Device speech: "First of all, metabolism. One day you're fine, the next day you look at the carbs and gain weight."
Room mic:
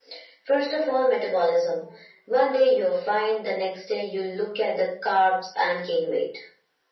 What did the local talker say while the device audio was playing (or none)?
none